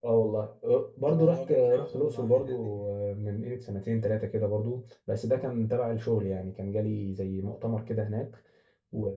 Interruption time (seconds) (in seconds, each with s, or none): 1.0 s